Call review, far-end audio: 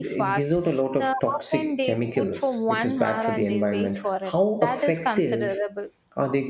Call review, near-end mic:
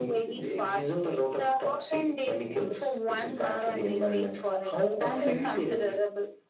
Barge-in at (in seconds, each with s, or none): 5.0 s